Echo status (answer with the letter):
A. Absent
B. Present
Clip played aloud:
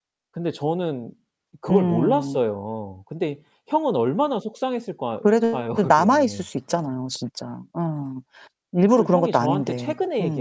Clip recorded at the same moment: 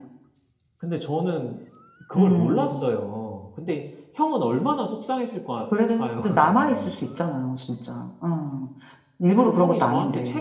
B